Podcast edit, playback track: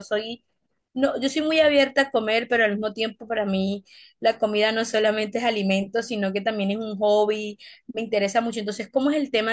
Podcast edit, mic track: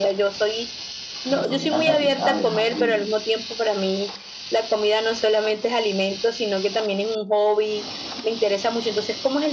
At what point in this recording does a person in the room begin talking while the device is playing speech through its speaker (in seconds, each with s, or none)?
1.3 s